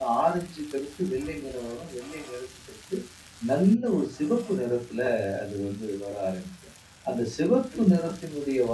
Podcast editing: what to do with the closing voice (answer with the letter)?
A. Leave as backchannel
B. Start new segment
A